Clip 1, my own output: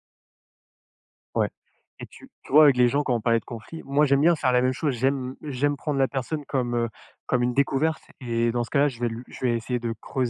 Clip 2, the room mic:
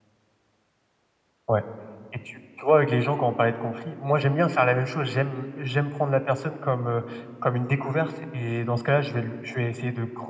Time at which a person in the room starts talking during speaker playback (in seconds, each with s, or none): none